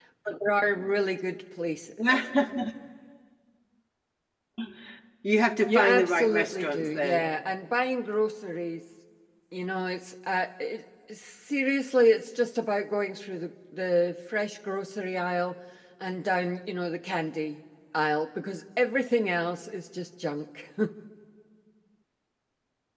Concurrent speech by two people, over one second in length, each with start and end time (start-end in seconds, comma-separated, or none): 5.7-7.3